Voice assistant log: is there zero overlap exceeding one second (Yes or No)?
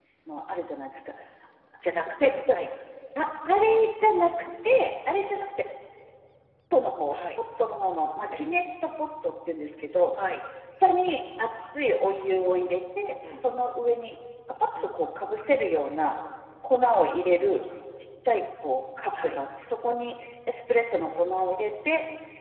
Yes